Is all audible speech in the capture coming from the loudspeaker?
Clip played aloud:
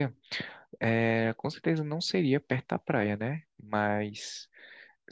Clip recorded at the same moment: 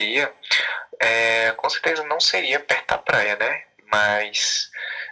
Yes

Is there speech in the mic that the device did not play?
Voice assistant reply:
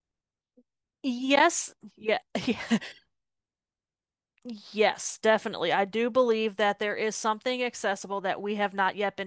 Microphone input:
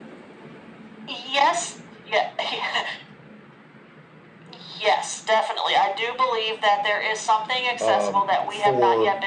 Yes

